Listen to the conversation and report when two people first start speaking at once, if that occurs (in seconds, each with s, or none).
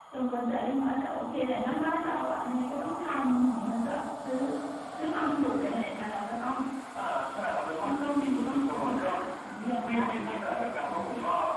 7.8 s